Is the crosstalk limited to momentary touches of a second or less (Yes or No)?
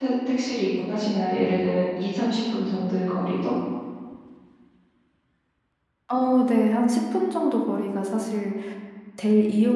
Yes